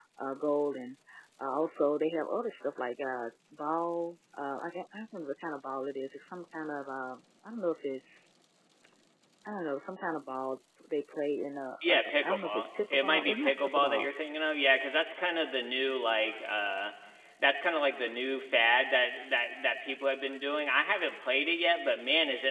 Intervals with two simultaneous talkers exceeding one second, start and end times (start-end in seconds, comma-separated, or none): 11.9-14.1